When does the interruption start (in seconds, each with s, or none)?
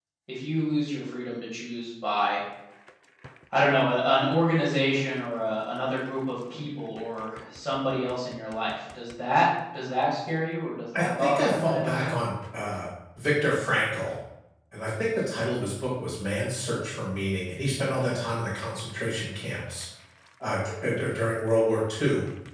10.9 s